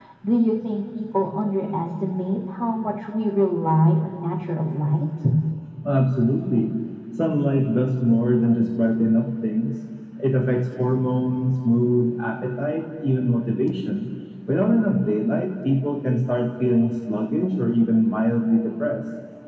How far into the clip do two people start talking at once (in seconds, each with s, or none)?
none